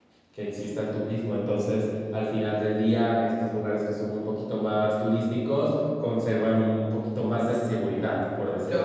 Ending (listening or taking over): taking over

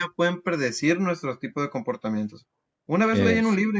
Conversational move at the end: listening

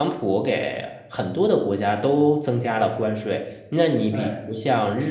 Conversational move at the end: listening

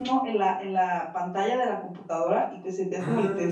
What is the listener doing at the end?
taking over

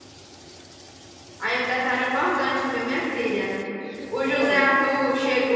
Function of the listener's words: listening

